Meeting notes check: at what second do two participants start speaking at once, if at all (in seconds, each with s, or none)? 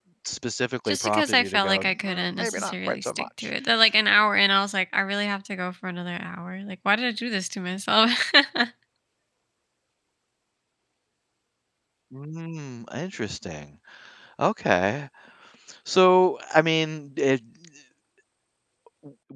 0.9 s